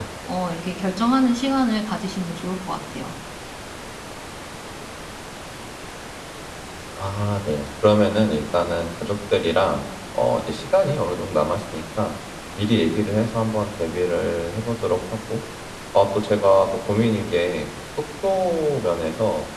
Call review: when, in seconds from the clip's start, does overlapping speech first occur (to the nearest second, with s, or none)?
none